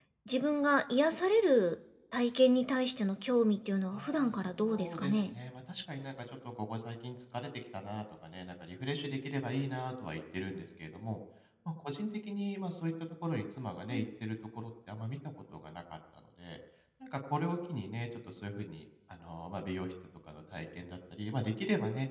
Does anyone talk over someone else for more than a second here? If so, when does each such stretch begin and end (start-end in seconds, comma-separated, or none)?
3.9-5.3